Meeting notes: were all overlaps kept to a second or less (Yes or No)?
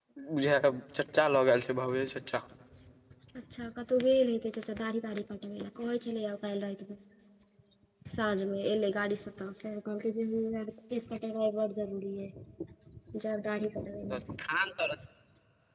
Yes